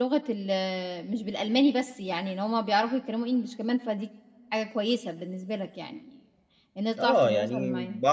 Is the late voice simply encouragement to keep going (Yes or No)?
No